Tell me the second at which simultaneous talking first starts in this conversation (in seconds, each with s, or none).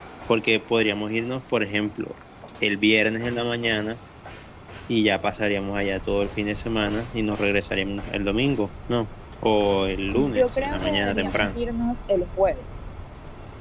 10.1 s